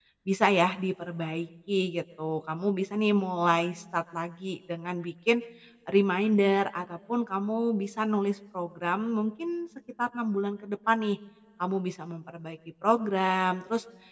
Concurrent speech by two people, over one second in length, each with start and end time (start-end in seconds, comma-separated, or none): none